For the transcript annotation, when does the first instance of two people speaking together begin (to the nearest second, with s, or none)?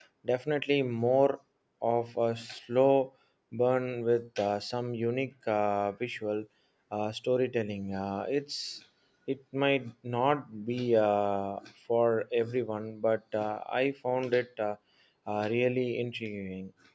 none